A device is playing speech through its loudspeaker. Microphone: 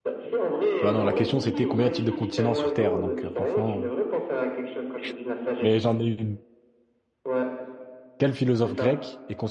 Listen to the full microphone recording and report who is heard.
both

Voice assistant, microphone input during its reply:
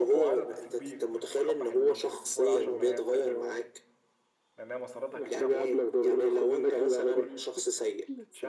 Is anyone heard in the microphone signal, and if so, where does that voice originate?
both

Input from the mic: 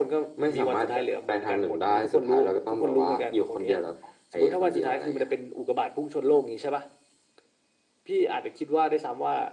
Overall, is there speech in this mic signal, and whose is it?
echo only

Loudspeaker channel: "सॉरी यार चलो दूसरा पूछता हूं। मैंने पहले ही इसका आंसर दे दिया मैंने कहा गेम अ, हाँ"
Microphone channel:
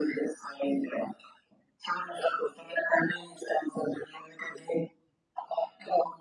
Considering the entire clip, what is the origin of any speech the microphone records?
echo only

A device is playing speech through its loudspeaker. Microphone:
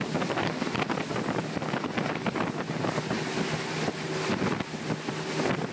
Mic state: neither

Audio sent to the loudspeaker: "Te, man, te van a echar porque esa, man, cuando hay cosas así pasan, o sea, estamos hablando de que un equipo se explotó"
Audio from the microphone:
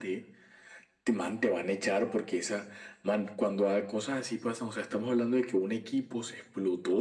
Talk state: echo only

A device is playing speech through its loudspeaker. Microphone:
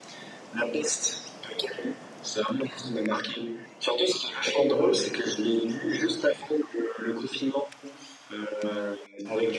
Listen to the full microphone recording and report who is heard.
echo only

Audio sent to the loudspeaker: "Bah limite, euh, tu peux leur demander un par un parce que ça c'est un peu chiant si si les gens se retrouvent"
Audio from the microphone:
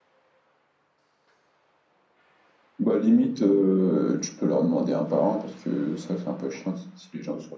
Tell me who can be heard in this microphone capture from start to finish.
echo only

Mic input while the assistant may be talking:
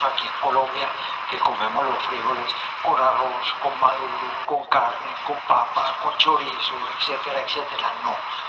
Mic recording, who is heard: echo only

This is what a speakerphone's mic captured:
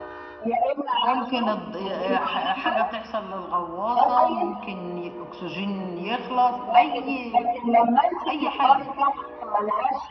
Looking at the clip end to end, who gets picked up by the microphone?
both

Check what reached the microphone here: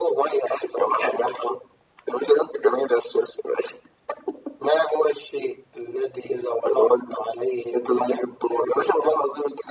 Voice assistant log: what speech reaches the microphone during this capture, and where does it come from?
echo only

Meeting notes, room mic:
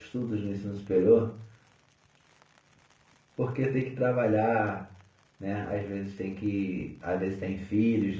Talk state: user only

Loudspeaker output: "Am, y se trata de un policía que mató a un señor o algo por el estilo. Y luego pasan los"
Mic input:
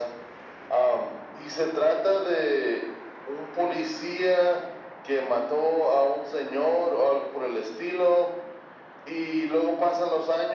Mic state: echo only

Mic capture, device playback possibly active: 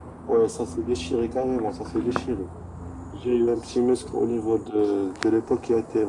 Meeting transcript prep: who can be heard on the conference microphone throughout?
echo only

